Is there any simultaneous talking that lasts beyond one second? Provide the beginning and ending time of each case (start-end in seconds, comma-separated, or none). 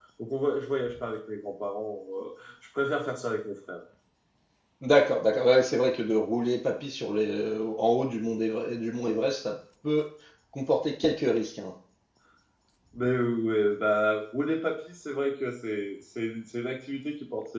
none